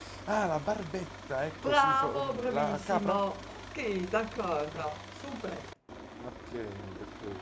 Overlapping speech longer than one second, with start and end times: 1.6-3.1

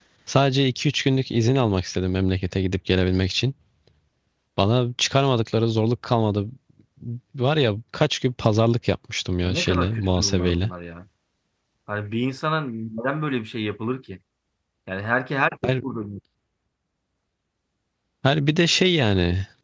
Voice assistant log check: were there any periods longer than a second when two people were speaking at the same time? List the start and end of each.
9.4-10.7

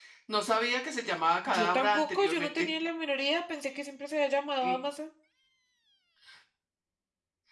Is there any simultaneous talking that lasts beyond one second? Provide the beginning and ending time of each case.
1.5-2.7

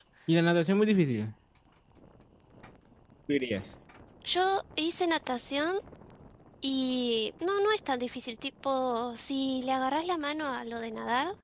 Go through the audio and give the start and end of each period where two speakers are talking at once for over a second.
none

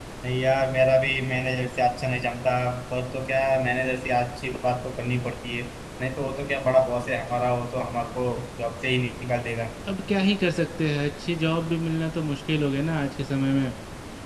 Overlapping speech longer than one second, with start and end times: none

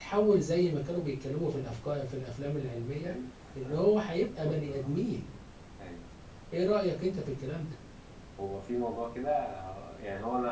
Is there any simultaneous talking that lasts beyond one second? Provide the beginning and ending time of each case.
none

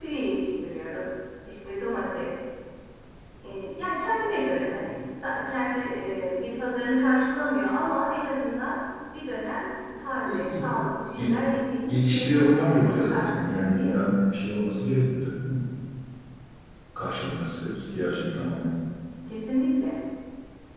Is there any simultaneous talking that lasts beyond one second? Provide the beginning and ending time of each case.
11.9-13.9

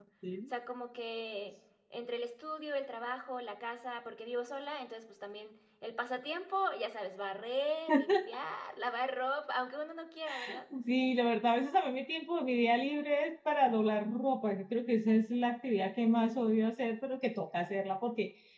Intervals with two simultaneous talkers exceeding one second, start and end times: none

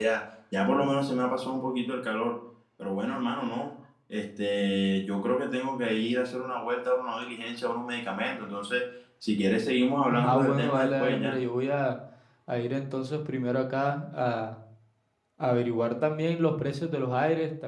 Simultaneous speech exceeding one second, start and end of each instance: 10.1-11.4

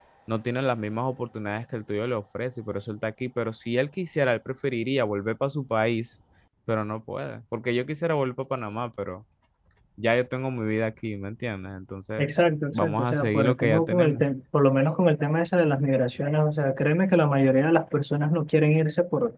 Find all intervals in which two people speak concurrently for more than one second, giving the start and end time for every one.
12.7-14.2

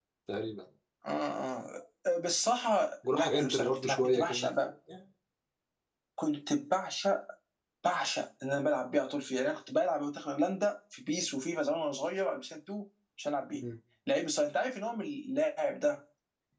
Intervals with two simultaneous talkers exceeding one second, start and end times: 3.1-4.5

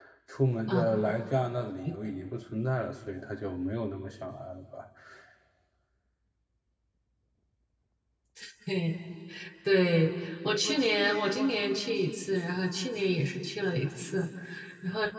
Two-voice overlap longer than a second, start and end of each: none

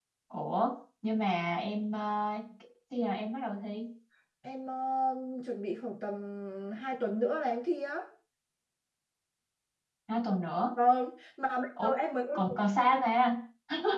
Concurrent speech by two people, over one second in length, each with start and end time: none

